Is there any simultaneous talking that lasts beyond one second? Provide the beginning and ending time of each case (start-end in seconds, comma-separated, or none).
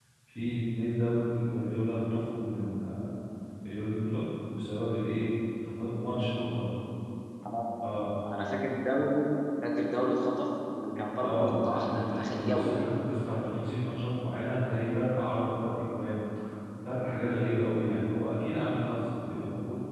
11.2-12.8